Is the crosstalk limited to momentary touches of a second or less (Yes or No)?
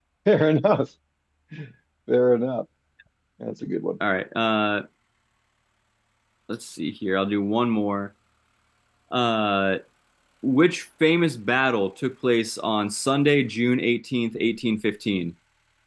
Yes